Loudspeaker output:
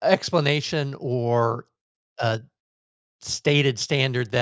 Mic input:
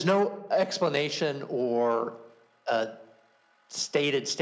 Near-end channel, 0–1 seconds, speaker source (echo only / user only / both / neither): echo only